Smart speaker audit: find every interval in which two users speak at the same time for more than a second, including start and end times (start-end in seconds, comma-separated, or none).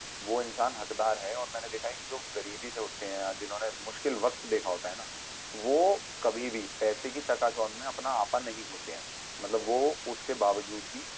none